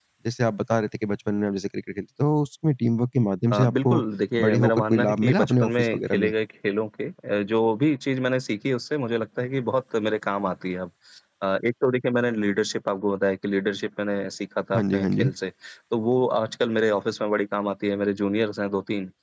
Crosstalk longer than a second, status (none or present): present